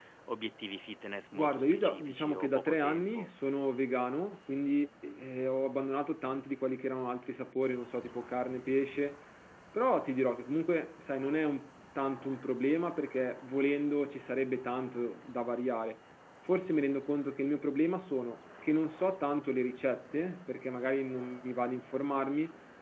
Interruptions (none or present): present